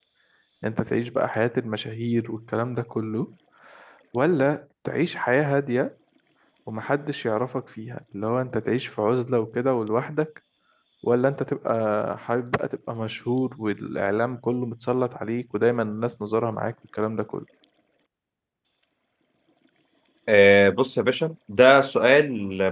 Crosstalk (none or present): none